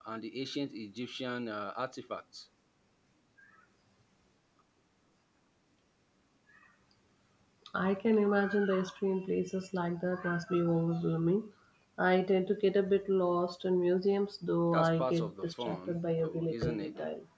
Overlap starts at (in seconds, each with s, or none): 14.7 s